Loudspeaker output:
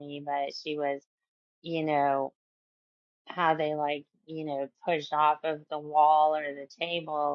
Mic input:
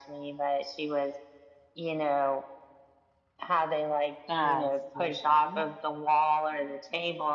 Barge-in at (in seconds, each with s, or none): 4.2 s